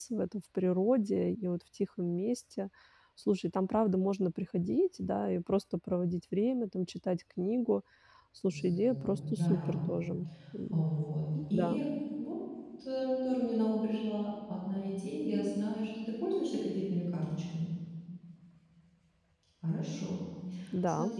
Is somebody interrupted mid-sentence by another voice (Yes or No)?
Yes